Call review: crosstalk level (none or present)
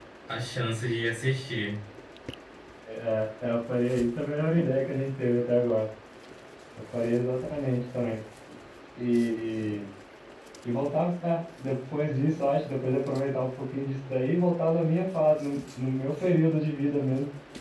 none